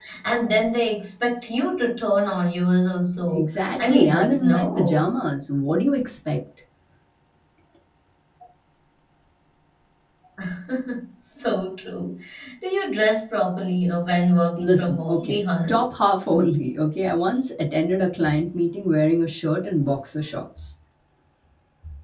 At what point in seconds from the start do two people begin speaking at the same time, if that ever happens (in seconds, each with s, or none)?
3.3 s